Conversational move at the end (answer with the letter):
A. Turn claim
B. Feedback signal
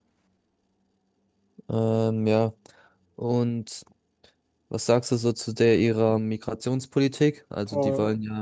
B